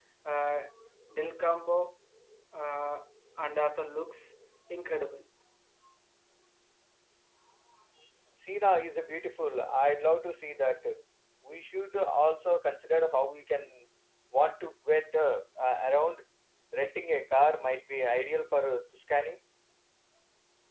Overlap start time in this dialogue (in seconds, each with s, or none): none